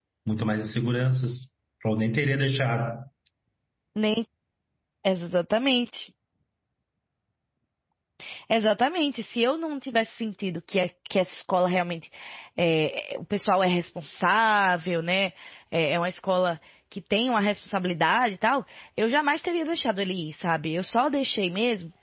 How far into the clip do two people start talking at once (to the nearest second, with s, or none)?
none